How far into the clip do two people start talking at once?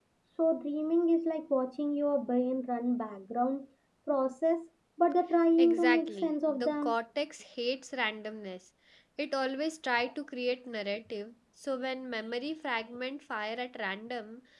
6 s

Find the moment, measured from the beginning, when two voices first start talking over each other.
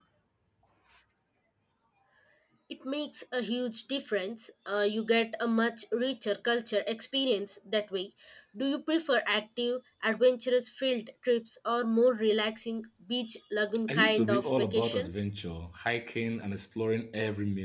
14 s

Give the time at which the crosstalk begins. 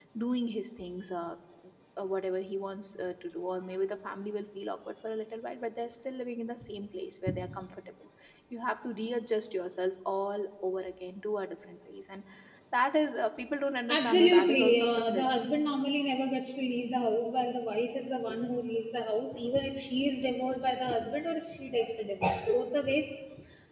14 s

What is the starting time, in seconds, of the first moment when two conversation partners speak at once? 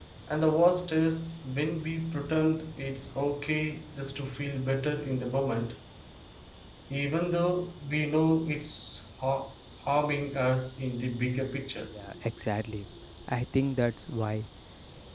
none

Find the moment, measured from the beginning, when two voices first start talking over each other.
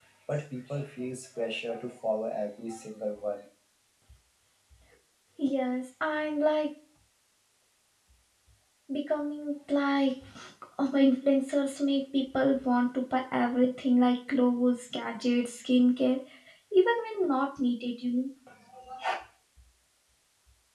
none

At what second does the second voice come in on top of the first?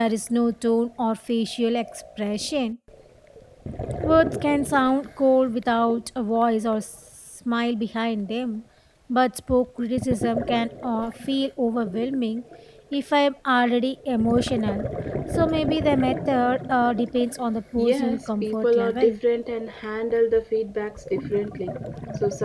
18 s

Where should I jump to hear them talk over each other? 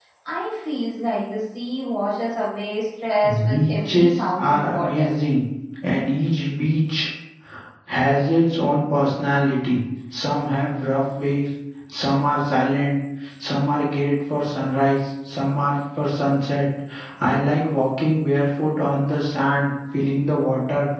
3 s

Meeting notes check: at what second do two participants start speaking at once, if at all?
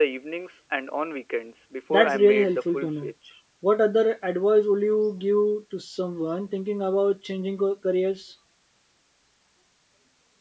2 s

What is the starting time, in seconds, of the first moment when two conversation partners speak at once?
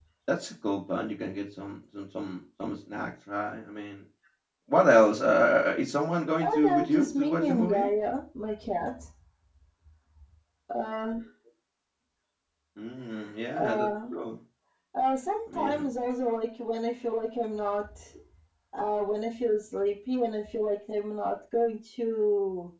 6 s

